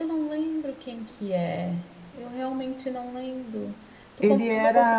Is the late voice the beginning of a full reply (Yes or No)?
Yes